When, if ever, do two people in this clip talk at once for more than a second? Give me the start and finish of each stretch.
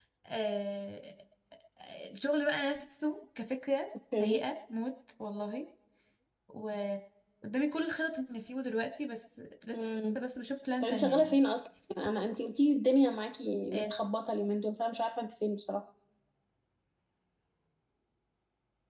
none

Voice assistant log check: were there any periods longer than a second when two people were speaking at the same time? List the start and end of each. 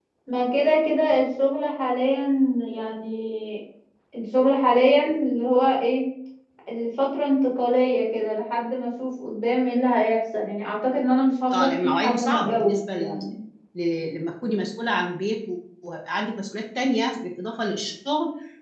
11.5-13.2

